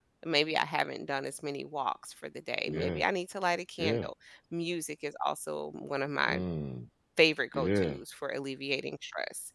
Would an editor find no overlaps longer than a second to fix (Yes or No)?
Yes